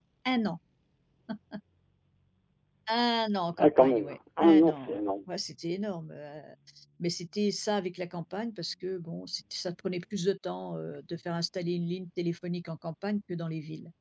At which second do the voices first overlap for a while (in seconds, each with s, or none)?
3.6 s